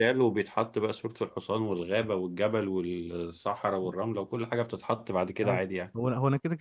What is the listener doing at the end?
taking over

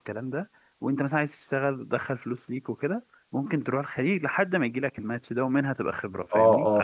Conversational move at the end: taking over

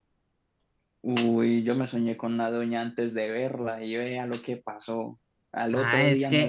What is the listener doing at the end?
taking over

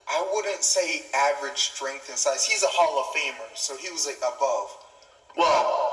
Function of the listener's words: listening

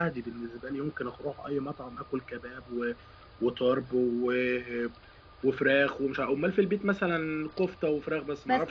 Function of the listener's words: taking over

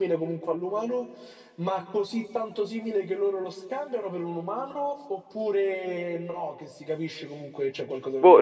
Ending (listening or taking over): taking over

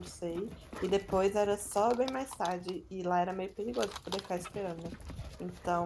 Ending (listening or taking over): listening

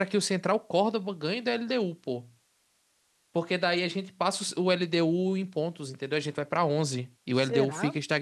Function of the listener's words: listening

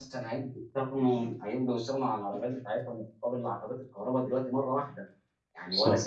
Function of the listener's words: listening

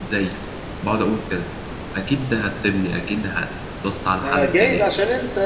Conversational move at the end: taking over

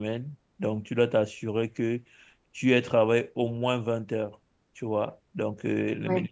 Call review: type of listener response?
listening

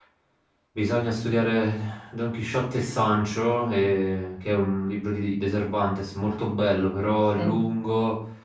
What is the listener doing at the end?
listening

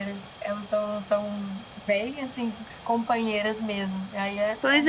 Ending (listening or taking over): taking over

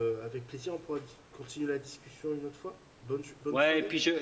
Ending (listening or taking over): taking over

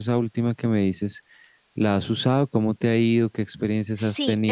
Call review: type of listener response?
taking over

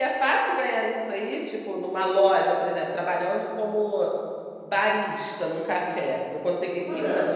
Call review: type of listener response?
taking over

